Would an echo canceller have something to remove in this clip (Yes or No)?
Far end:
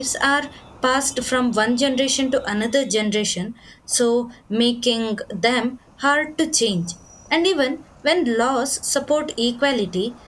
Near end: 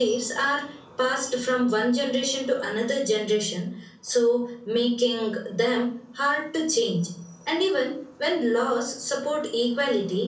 Yes